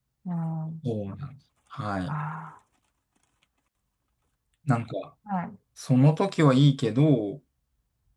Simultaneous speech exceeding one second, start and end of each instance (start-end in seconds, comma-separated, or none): none